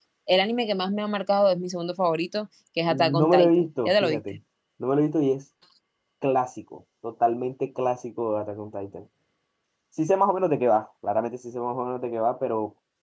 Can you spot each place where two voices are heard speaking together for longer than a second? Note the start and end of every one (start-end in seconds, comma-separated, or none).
2.9-4.2